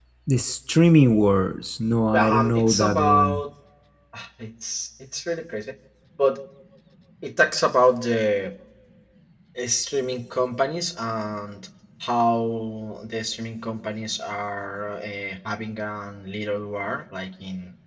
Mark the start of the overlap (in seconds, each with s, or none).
2.1 s